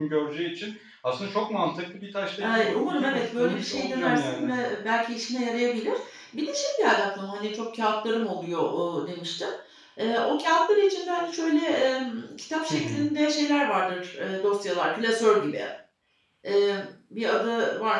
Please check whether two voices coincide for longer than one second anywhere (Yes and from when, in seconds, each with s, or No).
Yes, from 2.4 s